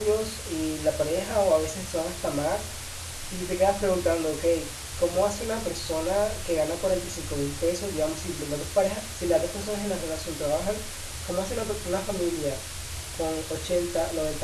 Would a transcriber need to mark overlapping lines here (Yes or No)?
No